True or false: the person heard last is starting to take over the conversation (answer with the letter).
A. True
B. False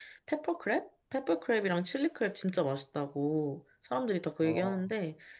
B